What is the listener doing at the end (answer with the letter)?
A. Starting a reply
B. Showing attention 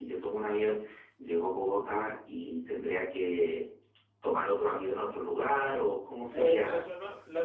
A